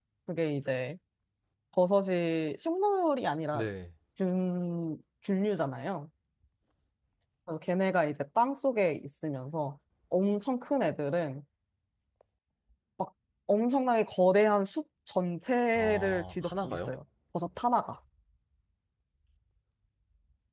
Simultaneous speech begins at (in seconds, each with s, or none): 15.7 s